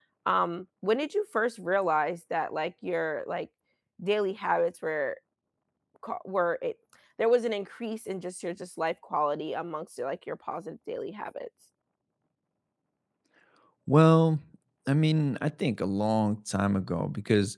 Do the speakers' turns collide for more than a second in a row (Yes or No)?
No